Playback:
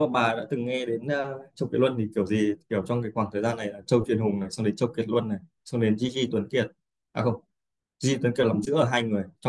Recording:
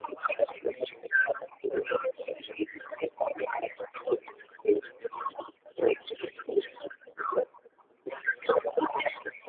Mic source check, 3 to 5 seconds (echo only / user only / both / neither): echo only